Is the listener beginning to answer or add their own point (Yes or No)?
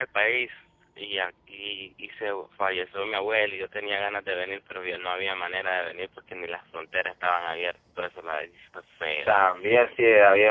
Yes